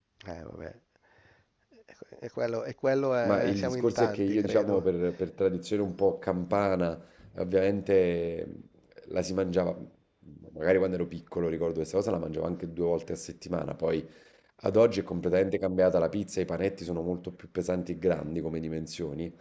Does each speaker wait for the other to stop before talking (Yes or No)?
No